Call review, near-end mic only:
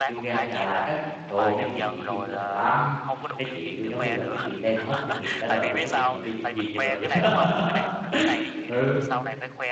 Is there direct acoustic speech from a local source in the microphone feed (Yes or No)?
Yes